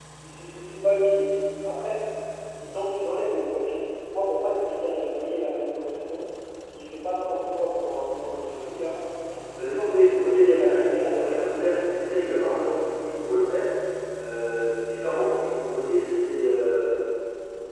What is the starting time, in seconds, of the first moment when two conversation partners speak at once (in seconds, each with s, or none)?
10.1 s